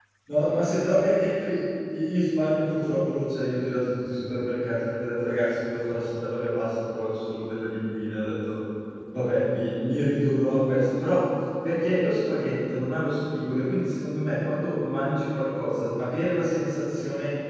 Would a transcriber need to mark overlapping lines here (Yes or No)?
No